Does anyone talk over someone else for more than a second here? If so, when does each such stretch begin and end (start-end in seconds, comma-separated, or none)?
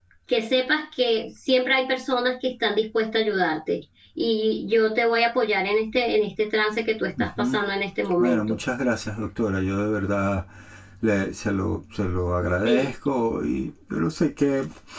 none